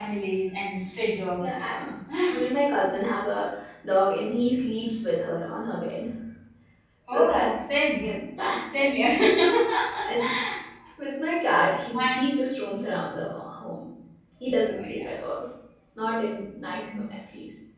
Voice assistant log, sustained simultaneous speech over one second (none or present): none